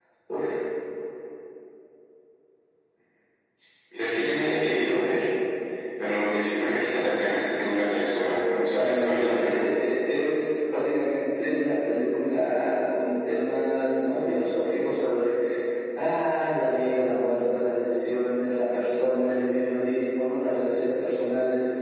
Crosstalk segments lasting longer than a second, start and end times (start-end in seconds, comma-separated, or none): 8.3-9.7